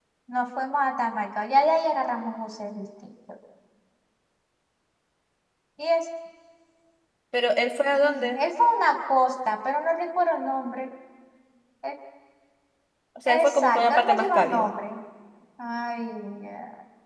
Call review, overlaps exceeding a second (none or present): present